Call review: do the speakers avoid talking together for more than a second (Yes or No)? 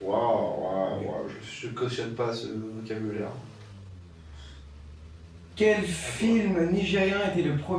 Yes